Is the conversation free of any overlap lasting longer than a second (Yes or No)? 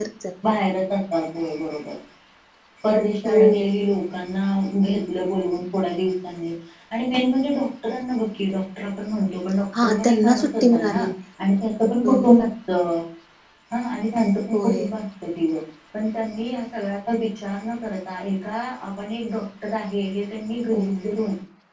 No